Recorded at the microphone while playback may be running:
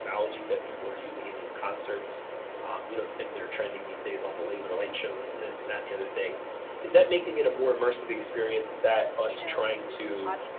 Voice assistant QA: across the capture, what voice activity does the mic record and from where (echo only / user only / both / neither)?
both